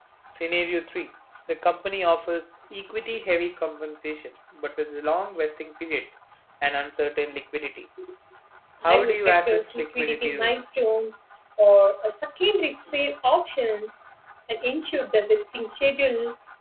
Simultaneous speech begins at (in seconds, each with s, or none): 8.8 s